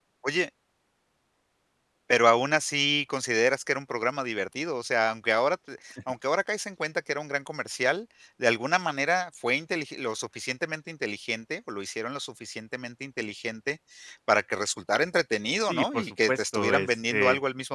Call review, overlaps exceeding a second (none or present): present